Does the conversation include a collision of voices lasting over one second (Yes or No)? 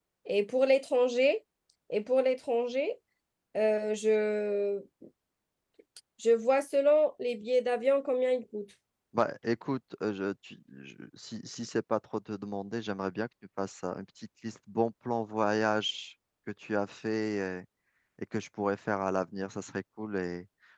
No